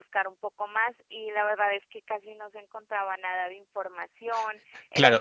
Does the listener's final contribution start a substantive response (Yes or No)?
Yes